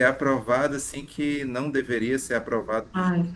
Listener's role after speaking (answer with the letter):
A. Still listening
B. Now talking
B